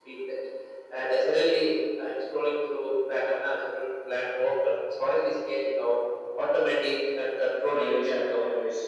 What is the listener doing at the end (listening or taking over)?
taking over